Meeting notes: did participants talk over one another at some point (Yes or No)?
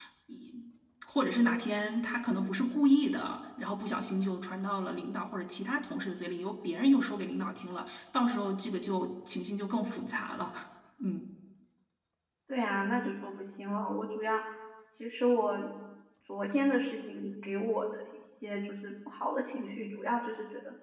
No